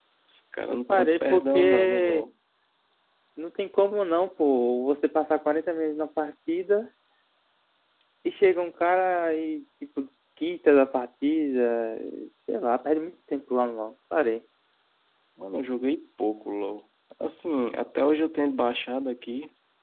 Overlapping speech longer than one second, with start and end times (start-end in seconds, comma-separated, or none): 0.7-2.3